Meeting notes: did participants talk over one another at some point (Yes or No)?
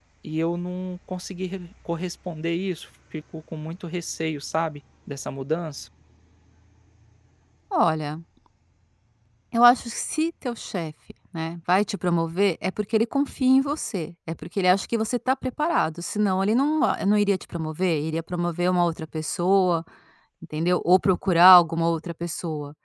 No